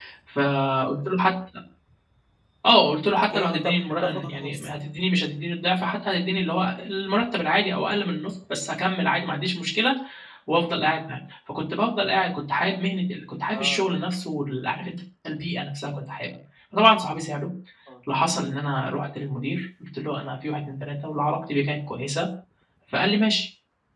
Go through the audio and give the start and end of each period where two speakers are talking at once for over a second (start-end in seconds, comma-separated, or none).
3.3-4.7